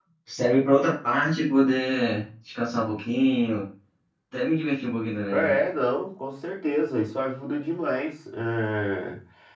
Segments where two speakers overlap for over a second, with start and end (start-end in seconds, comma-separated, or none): none